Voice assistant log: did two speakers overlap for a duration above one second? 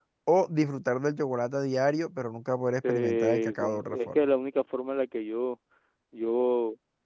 Yes, from 2.8 s

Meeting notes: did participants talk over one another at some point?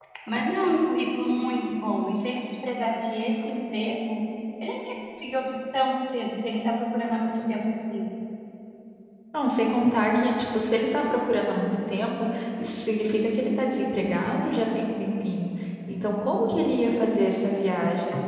No

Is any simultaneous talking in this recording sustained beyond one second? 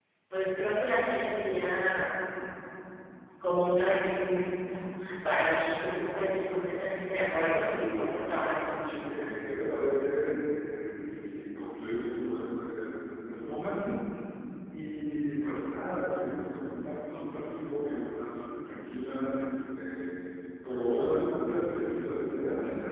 Yes, from 7.1 s

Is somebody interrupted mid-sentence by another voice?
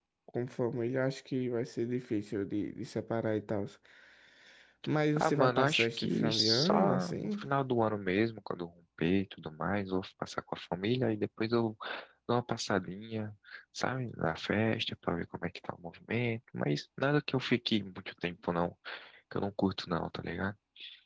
Yes, from 5.2 s

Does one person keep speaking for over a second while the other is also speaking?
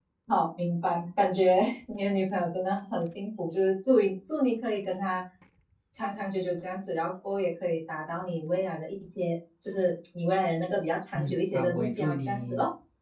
Yes, from 11.1 s

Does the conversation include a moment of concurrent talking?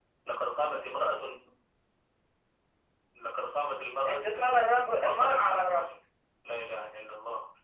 Yes, from 4.0 s

